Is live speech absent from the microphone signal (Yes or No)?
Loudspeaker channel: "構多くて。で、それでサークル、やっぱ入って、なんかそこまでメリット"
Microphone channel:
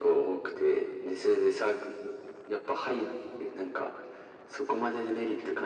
Yes